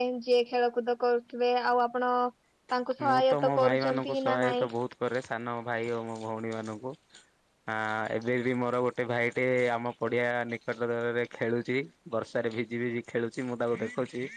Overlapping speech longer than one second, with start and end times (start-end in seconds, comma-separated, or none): 3.0-4.7